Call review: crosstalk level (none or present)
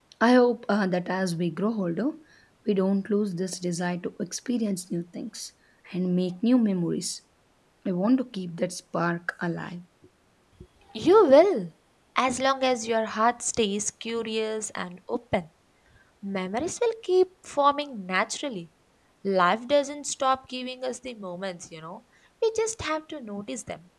none